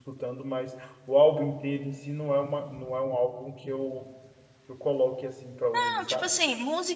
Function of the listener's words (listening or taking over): taking over